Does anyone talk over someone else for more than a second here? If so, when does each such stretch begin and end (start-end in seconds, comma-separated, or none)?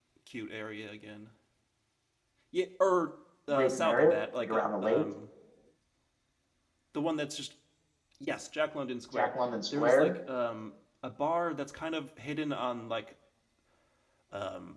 3.5-5.0